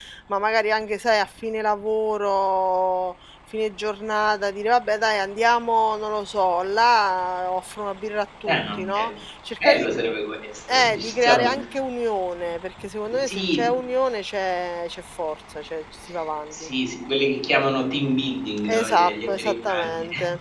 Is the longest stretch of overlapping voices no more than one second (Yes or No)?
No